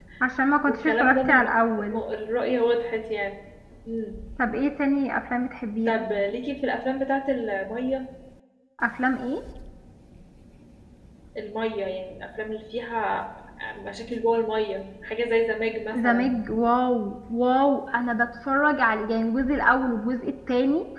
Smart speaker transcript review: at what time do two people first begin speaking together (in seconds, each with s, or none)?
0.7 s